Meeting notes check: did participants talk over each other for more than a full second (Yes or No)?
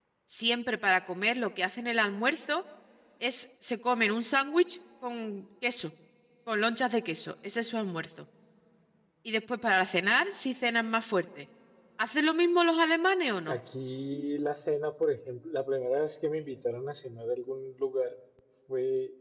No